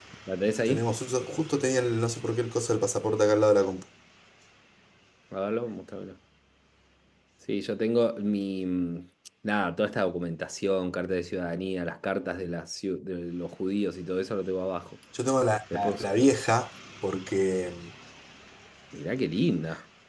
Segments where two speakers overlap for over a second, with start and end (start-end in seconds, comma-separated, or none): none